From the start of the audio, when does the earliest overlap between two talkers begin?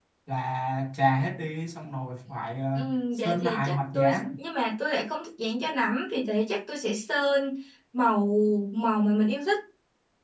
2.8 s

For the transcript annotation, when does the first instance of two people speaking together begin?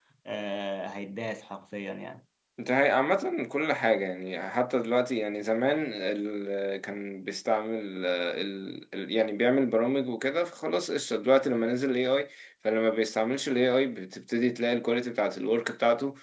none

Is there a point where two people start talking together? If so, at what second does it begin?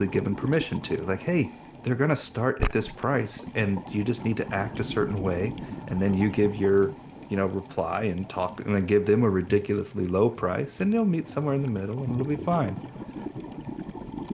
none

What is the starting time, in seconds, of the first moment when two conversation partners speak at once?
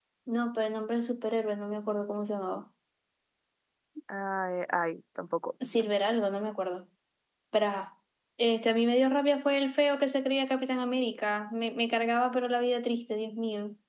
none

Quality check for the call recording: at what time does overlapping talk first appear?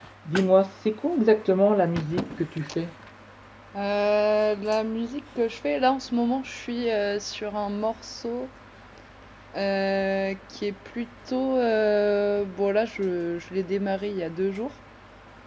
none

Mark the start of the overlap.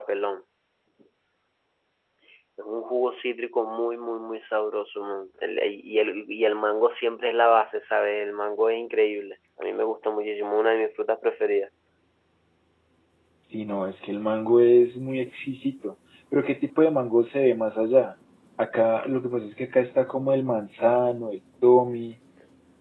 none

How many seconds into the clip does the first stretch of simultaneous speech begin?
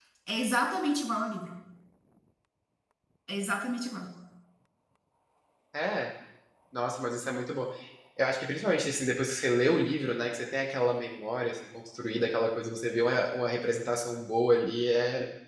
none

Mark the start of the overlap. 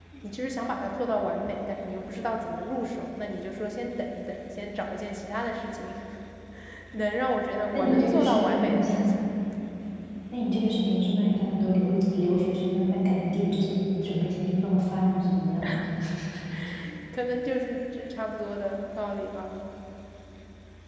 7.7 s

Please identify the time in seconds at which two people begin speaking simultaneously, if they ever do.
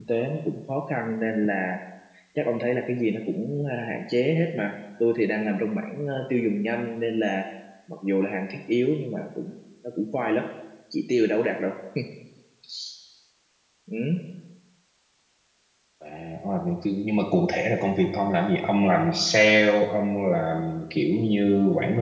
none

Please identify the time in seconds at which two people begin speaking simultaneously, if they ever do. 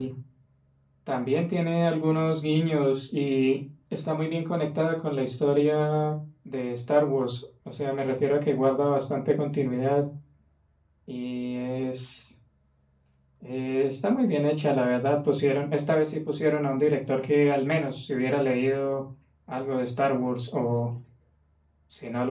none

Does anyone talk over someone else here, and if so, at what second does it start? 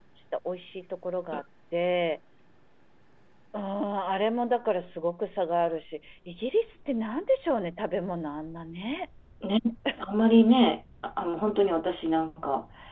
none

